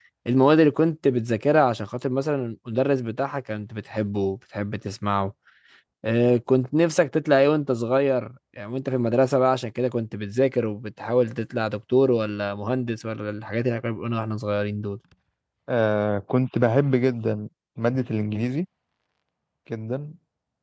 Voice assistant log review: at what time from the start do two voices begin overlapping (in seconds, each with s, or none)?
none